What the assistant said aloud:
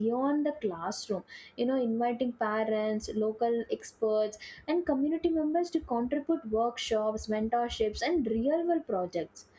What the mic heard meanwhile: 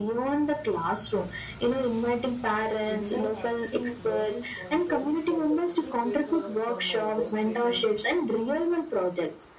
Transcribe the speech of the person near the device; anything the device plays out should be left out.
interactive learning concurrents that the project based uh, some uh, workstations

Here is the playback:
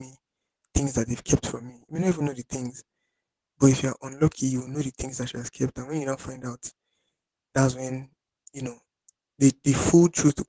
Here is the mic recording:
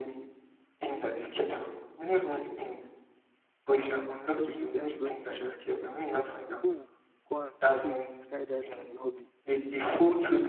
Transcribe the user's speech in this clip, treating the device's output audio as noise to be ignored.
I believe their brains are just different because some people will go and take skydiving as a hobby.

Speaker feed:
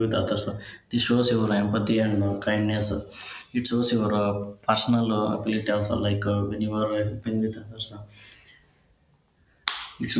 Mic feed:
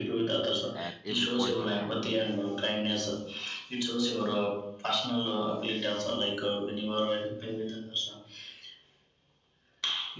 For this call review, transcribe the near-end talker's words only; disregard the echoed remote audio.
at every point of time.

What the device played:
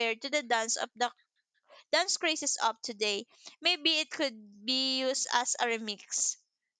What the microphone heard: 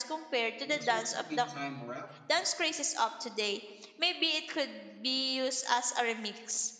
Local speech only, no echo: Next one will be Time Rap.

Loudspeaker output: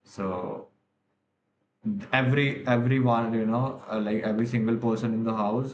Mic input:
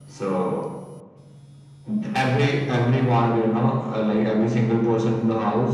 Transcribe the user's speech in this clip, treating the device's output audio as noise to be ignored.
none

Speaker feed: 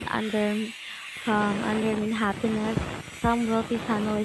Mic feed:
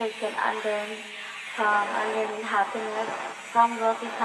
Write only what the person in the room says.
none

